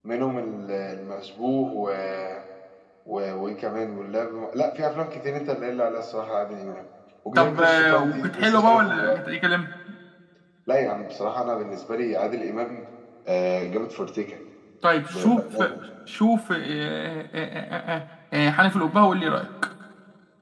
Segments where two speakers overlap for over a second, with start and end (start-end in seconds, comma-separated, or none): 7.3-9.3